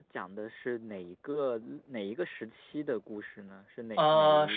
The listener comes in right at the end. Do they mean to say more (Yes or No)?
Yes